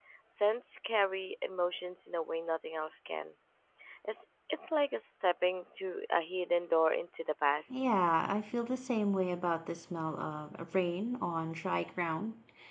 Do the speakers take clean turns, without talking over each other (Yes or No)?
Yes